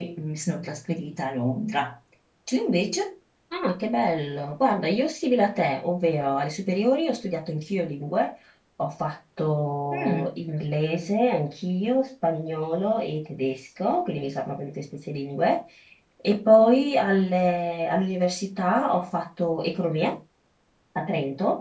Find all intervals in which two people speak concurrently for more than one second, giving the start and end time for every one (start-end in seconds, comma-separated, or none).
none